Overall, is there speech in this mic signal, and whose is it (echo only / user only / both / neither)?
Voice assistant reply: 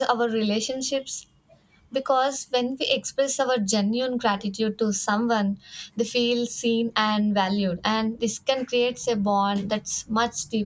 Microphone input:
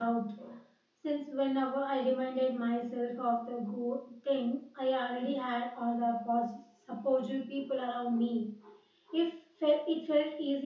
user only